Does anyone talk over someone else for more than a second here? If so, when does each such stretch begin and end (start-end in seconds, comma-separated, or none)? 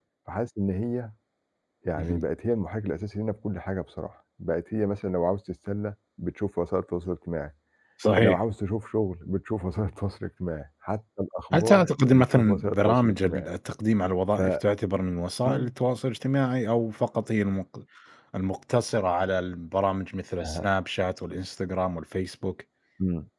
11.5-13.4